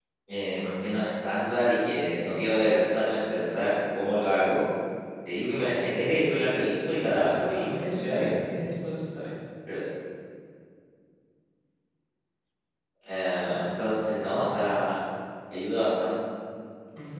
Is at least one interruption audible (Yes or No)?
Yes